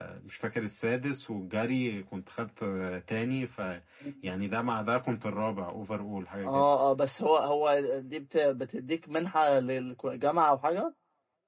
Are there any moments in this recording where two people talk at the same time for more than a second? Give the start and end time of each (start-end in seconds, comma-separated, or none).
none